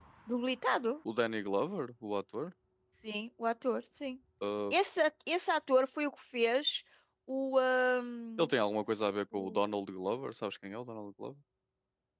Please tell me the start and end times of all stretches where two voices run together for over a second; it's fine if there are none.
none

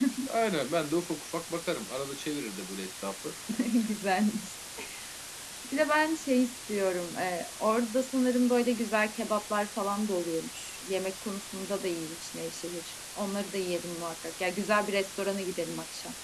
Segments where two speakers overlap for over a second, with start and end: none

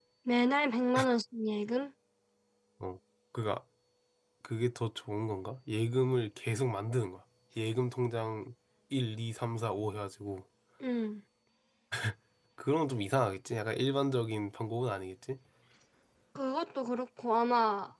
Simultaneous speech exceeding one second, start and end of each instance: none

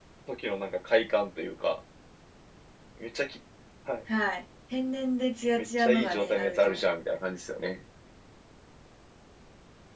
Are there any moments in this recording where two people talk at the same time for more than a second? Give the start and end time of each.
5.6-6.8

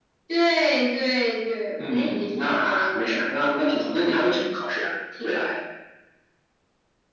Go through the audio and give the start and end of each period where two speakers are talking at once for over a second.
1.8-3.2

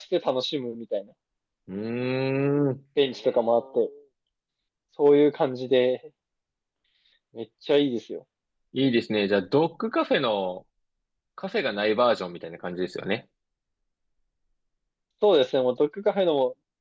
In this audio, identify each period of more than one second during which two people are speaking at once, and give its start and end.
none

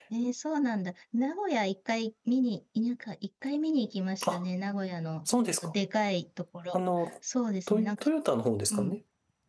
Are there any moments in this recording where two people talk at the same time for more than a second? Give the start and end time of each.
none

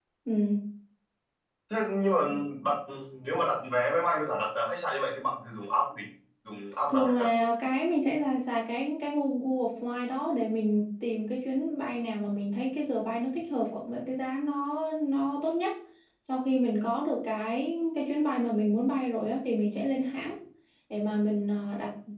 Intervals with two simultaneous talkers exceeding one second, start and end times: none

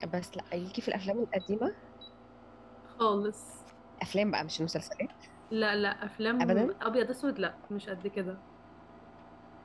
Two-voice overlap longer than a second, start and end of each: none

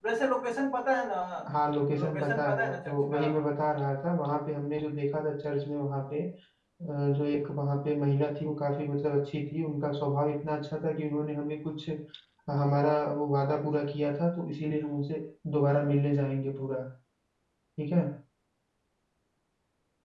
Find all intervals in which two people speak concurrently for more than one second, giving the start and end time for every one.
2.0-3.2

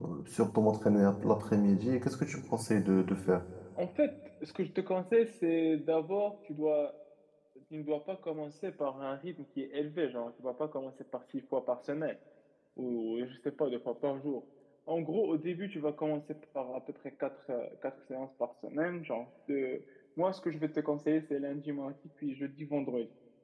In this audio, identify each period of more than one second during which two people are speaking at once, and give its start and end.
none

